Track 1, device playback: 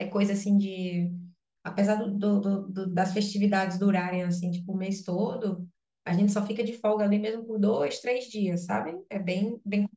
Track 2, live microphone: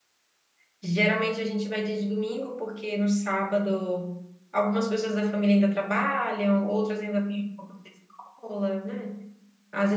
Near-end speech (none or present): present